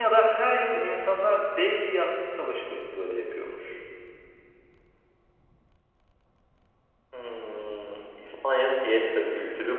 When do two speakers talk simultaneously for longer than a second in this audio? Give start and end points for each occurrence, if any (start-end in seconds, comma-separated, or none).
none